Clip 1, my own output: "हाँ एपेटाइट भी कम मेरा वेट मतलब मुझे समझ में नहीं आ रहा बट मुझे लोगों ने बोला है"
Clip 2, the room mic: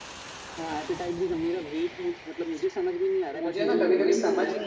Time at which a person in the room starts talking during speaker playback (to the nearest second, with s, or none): 3 s